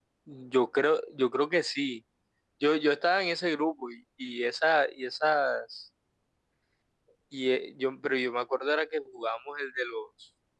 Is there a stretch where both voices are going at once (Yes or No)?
No